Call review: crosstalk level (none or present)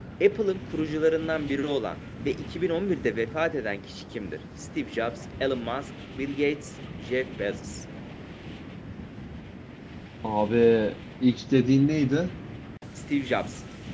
none